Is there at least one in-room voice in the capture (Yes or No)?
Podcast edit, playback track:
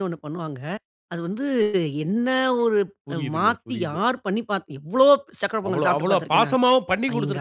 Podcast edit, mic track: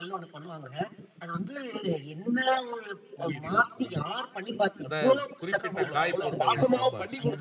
Yes